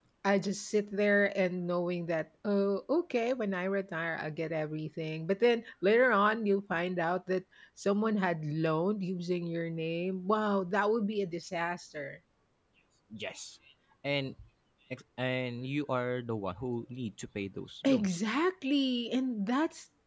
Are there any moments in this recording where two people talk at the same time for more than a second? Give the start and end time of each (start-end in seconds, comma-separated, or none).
none